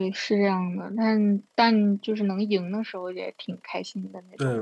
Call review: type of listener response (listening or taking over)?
taking over